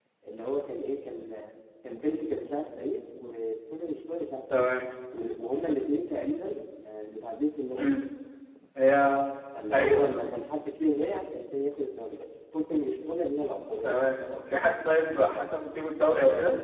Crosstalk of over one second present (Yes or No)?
No